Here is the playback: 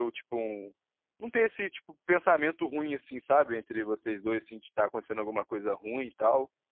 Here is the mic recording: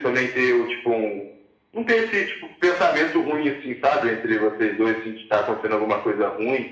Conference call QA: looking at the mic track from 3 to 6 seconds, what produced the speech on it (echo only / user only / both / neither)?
echo only